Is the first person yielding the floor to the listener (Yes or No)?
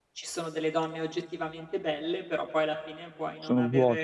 No